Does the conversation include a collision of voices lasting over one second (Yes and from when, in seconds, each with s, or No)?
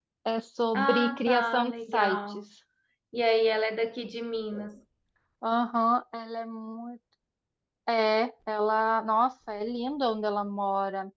Yes, from 0.8 s